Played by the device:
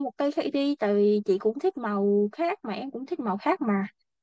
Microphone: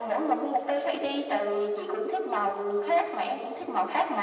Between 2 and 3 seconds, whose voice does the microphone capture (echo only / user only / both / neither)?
echo only